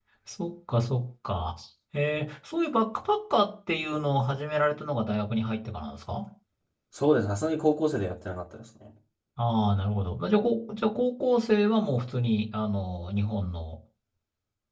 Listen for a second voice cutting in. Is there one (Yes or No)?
No